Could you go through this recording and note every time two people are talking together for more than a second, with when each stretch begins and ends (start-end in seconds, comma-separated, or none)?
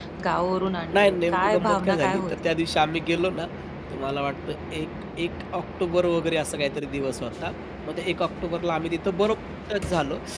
1.0-2.5